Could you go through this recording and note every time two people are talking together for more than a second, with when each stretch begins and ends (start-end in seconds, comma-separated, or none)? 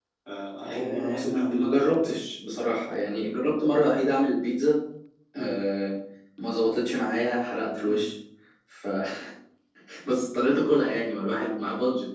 0.7-2.2